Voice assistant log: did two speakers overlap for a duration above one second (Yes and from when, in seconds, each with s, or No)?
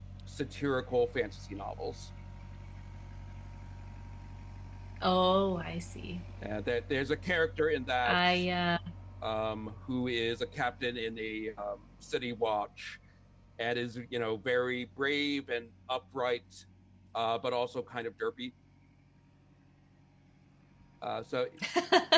No